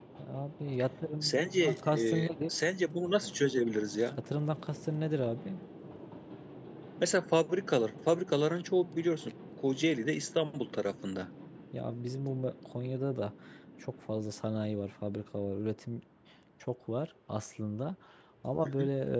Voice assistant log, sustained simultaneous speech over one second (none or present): present